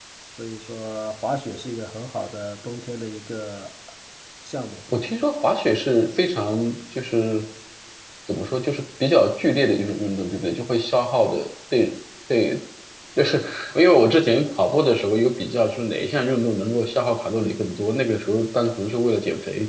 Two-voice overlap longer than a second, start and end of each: none

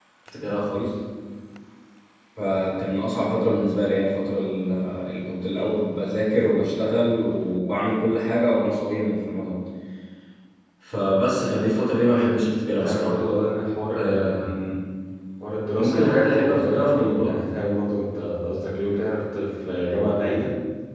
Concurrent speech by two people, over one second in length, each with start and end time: 15.8-17.4

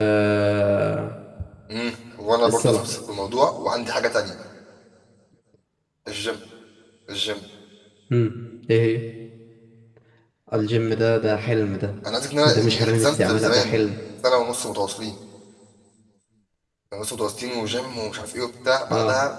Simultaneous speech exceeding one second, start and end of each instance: 12.4-13.8

